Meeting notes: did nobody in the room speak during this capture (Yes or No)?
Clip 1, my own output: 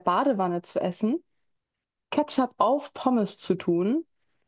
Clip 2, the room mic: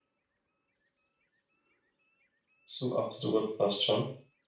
No